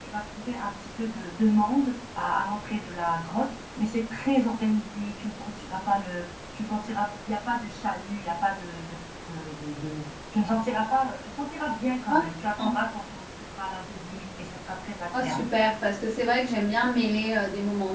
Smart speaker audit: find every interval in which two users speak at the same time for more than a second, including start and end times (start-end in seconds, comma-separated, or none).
none